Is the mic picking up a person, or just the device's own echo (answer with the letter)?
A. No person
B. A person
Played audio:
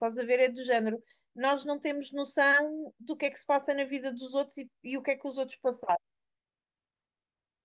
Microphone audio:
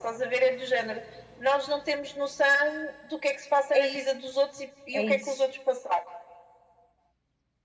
B